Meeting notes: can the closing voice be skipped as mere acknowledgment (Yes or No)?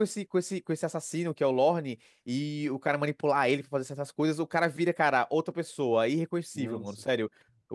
Yes